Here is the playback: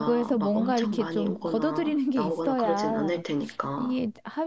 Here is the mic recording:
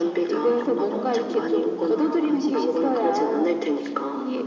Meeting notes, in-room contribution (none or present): present